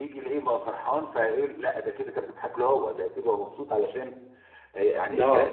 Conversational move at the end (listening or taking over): listening